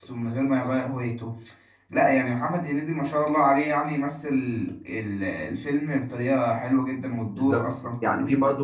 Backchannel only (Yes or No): No